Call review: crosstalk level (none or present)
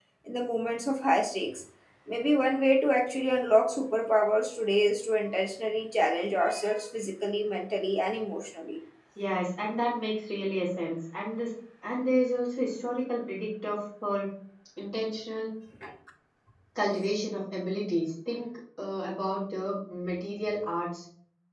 none